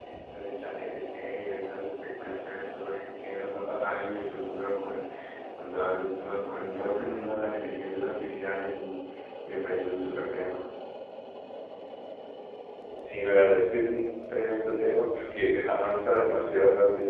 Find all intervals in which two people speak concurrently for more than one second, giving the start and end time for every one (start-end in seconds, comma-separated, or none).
none